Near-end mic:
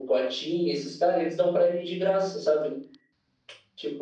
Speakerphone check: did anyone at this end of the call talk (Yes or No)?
No